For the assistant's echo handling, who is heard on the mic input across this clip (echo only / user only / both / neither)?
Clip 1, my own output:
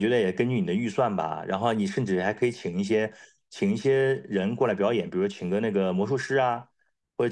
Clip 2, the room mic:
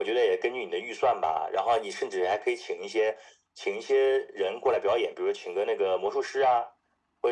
echo only